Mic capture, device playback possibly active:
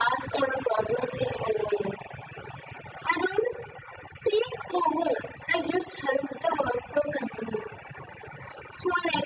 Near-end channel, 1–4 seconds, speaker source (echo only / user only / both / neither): echo only